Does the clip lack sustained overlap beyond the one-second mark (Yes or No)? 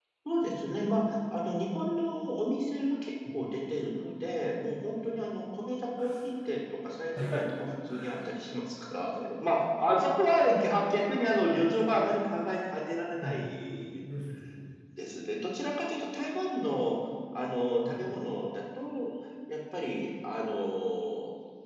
Yes